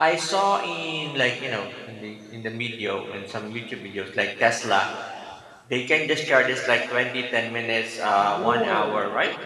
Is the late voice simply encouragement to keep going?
No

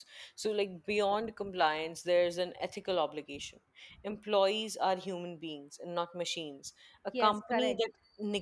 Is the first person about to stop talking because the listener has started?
No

